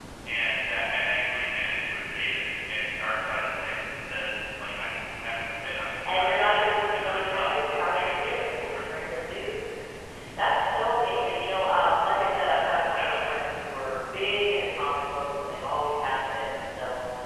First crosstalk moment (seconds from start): 6.0 s

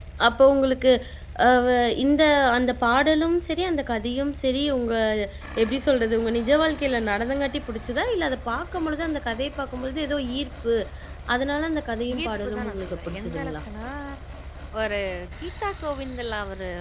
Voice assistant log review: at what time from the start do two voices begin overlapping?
12.2 s

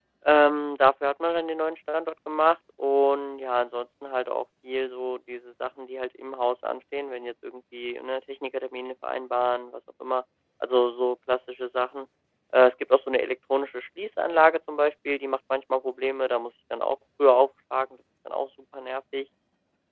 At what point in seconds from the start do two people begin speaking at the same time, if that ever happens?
none

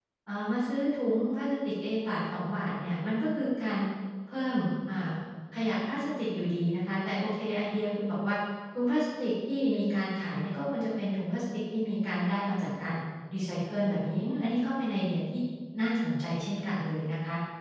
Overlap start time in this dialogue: none

